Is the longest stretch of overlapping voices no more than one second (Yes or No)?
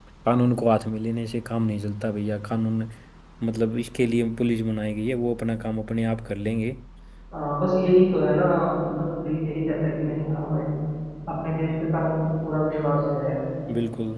Yes